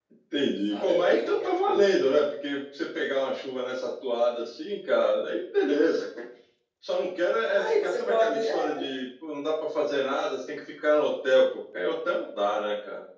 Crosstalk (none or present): present